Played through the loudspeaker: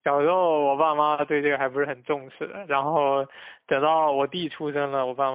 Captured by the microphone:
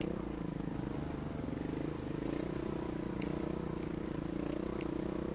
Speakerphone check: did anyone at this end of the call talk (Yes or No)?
No